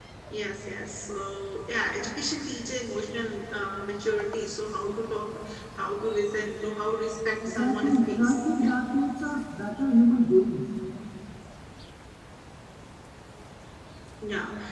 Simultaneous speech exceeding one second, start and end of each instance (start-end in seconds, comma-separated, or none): 7.4-8.7